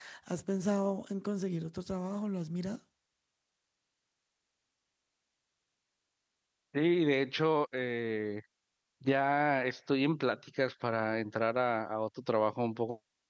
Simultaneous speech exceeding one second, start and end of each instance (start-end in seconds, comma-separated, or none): none